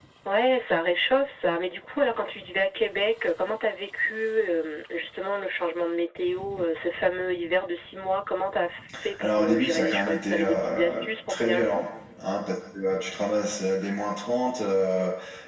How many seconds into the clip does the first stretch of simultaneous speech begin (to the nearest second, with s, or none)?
9 s